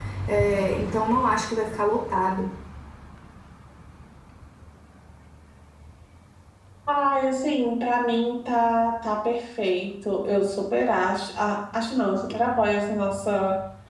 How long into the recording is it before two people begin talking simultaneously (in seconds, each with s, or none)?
none